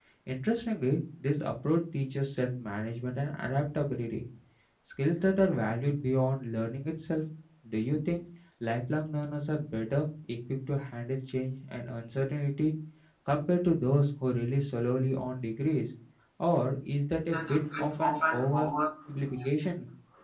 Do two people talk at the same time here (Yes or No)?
Yes